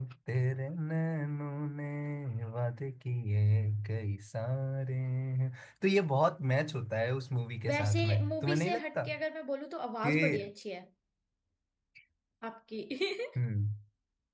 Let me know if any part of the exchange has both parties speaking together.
Yes, from 7.7 s

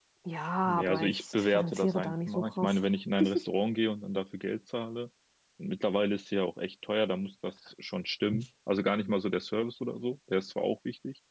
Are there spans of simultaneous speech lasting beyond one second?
Yes, from 0.7 s

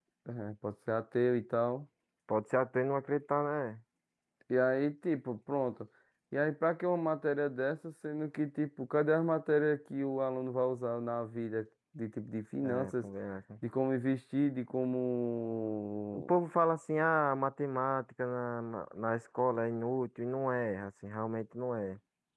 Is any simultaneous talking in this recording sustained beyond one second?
No

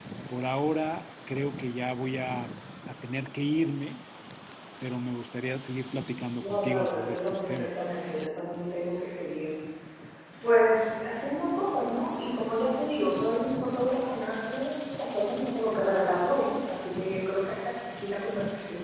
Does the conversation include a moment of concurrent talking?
Yes, from 6.4 s

